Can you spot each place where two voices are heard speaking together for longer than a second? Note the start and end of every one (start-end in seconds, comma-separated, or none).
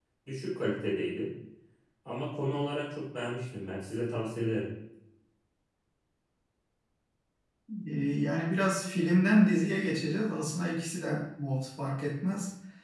none